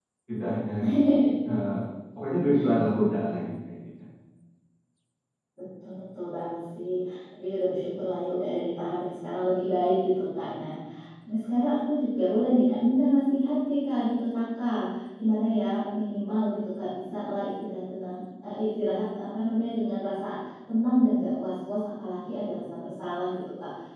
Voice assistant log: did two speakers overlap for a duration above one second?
No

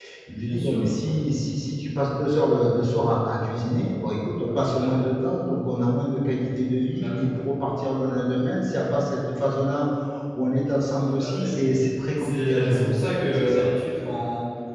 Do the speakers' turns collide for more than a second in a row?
Yes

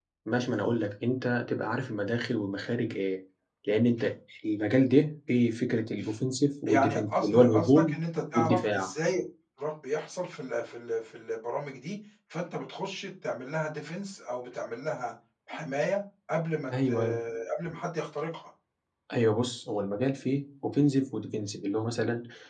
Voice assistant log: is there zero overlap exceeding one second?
No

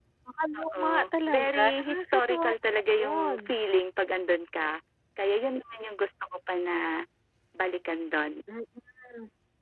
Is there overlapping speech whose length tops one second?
Yes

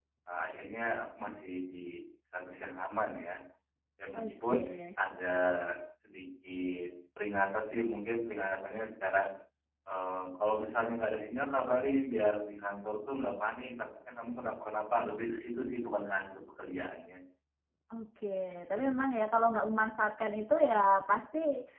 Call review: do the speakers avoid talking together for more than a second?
Yes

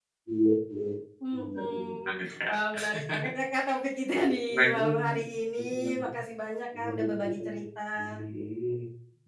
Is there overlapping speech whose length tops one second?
Yes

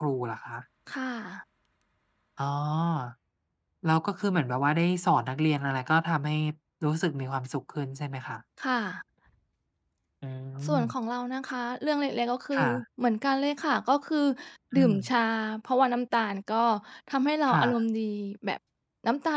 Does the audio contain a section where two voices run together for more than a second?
No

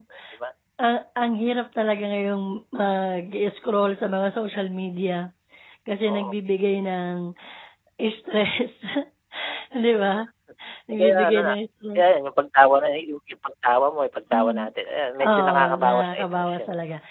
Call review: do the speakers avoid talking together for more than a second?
No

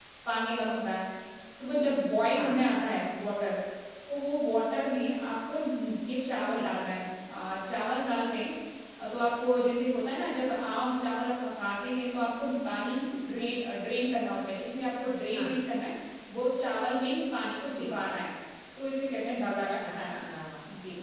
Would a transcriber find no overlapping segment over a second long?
Yes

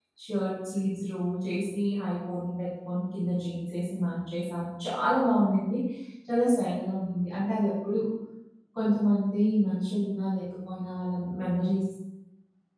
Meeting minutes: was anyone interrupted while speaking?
No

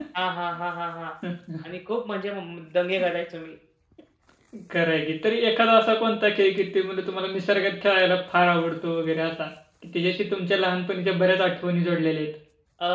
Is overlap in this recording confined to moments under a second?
Yes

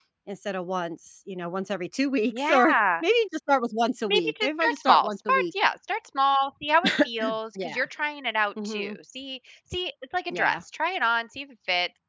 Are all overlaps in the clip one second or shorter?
No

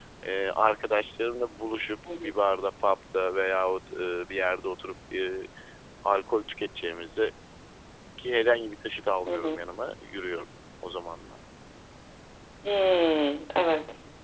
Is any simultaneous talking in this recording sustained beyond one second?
No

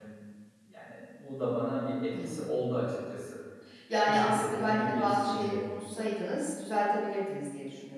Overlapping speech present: Yes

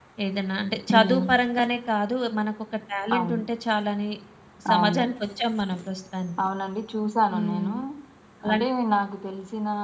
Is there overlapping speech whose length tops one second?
No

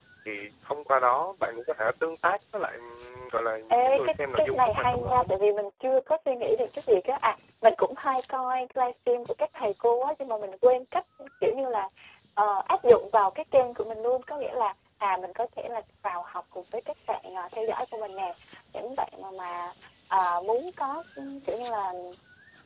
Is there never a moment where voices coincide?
No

